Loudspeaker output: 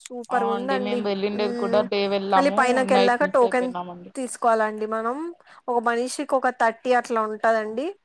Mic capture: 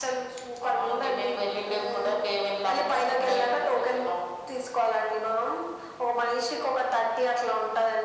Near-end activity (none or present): none